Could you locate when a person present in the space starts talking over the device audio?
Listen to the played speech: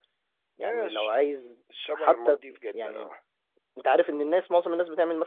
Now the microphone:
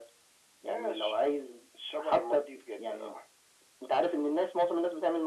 none

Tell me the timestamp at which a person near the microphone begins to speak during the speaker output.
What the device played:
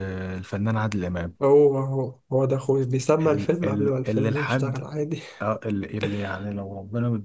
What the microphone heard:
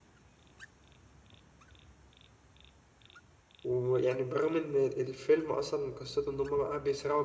3.6 s

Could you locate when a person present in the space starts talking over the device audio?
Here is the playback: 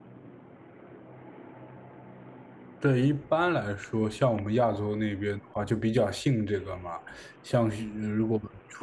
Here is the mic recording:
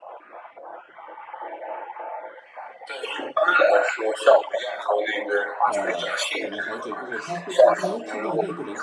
5.6 s

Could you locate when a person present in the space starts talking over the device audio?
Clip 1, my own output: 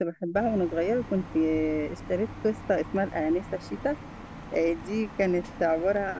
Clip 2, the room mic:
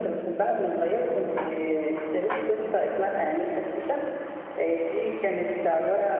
none

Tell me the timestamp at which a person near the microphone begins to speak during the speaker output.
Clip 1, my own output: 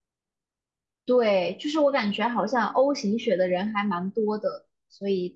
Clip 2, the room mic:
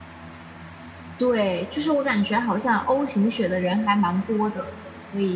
none

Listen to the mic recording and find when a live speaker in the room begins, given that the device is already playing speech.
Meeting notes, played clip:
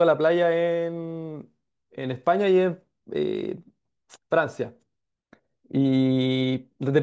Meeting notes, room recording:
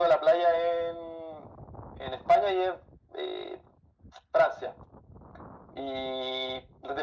none

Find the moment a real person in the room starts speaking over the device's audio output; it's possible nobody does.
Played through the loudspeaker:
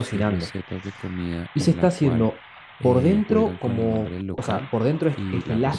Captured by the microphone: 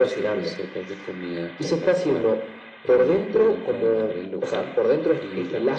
none

